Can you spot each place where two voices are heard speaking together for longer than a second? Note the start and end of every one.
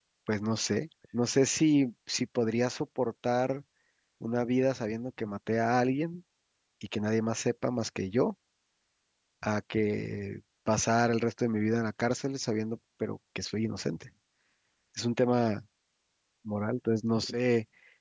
none

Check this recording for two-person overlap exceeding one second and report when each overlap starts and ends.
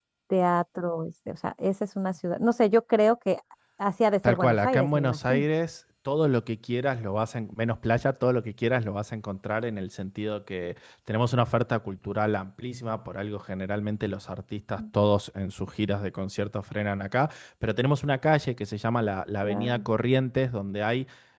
4.2-5.4

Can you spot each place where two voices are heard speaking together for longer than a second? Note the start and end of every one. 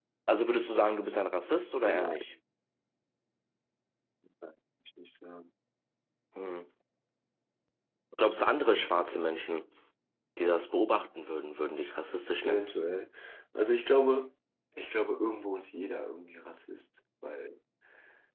none

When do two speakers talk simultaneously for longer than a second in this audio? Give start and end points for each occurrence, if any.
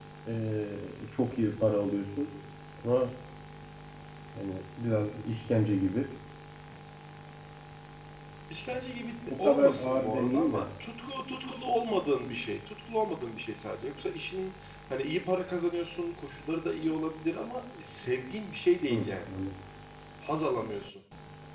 9.3-10.6

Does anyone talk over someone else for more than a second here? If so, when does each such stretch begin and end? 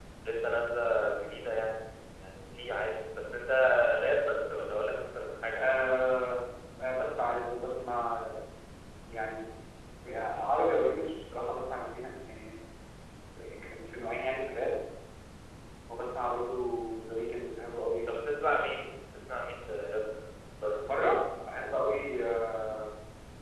none

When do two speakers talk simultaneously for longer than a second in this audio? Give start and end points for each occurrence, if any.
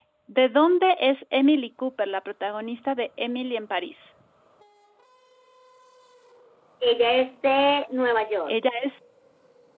none

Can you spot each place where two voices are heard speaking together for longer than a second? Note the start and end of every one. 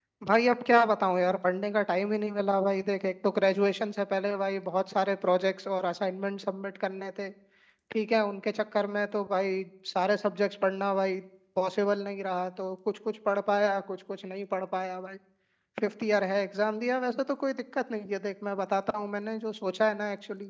none

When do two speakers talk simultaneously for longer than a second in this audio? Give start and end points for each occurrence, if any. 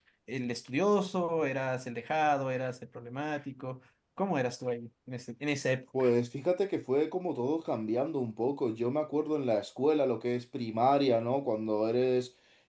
none

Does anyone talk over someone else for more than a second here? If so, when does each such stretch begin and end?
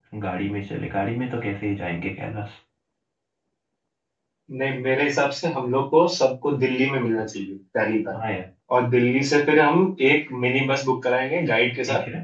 none

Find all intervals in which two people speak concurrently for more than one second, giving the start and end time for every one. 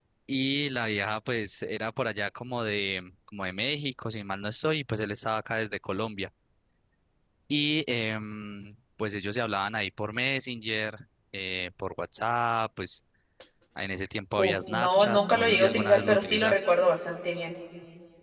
14.4-16.7

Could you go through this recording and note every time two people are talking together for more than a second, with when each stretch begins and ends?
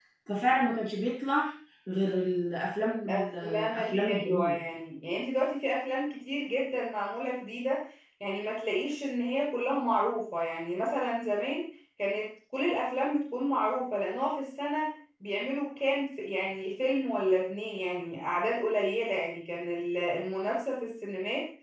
3.1-4.6

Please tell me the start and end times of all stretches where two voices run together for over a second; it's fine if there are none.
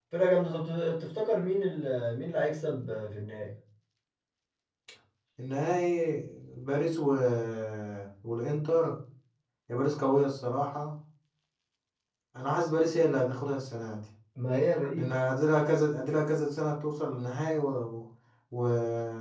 none

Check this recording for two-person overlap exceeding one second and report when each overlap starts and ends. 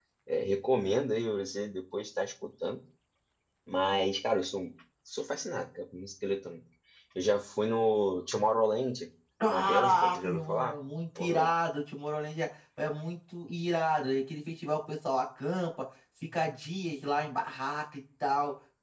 9.5-10.8

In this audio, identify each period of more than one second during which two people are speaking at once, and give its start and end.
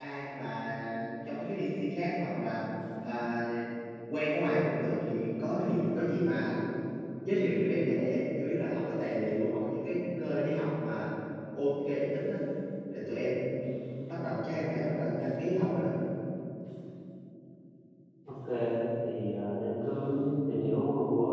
none

